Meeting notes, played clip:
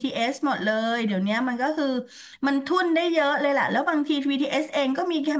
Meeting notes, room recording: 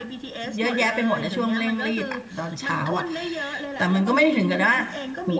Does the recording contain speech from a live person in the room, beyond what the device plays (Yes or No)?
Yes